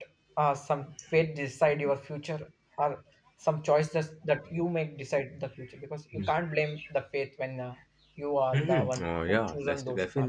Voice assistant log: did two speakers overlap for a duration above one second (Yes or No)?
Yes